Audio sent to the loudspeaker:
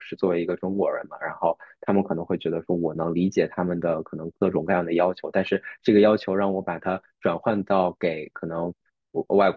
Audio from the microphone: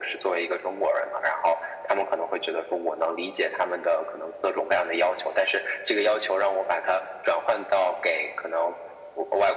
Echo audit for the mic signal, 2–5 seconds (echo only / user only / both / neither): echo only